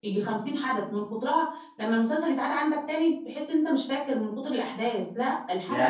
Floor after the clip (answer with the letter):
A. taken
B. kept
A